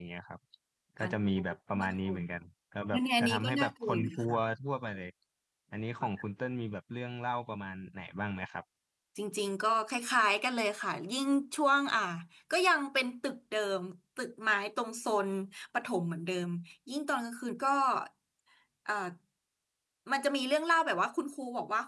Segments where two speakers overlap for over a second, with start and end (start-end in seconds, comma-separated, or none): 2.9-4.4